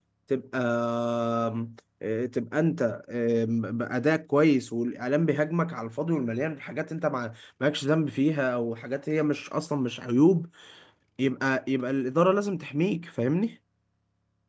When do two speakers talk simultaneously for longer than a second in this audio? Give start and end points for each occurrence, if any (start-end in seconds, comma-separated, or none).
none